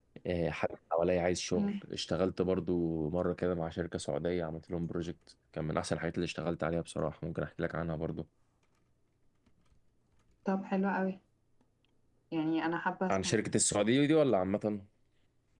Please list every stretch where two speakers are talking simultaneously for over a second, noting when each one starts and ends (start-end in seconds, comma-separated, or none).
none